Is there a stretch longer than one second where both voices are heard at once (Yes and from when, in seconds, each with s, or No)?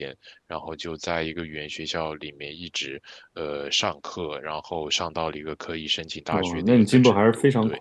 Yes, from 6.3 s